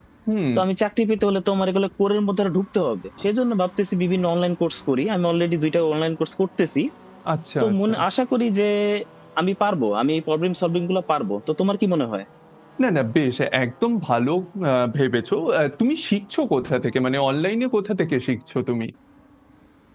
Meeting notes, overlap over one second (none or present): none